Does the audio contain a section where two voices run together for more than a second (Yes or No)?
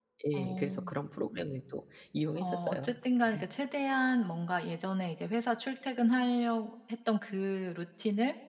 No